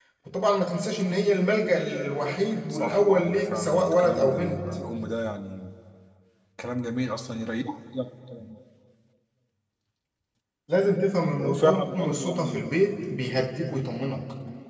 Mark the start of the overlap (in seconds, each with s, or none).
2.7 s